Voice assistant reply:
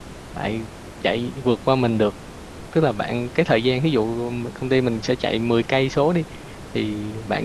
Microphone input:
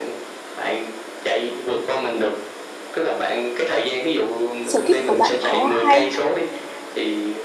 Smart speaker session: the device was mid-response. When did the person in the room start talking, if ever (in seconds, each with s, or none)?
4.6 s